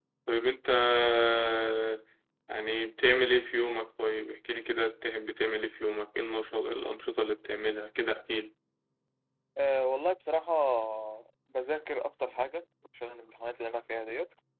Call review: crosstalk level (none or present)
none